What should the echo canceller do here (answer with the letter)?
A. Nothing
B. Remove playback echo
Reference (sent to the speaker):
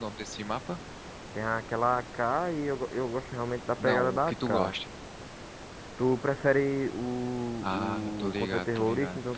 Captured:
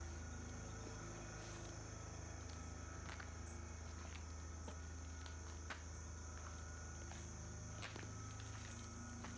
A